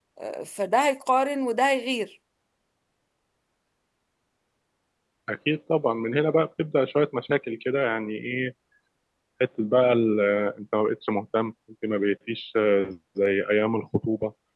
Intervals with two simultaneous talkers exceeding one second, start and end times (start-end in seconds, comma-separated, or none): none